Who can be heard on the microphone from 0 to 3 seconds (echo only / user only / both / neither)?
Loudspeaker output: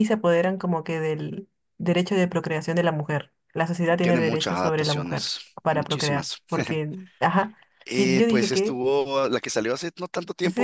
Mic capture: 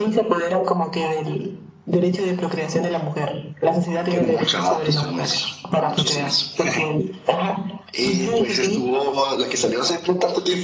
echo only